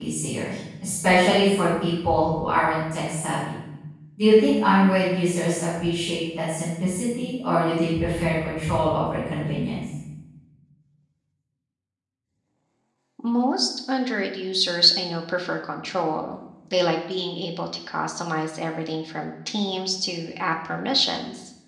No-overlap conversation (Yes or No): Yes